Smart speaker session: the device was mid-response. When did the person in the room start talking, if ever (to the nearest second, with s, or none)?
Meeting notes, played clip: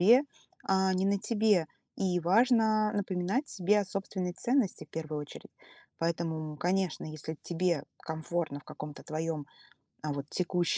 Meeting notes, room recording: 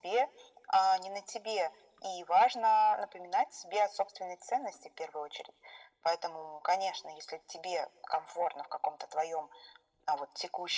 none